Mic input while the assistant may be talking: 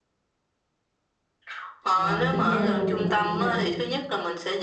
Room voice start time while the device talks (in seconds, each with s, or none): 1.9 s